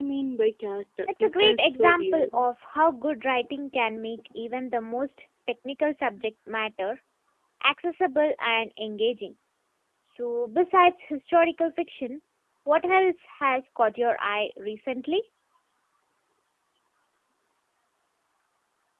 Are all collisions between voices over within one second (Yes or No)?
No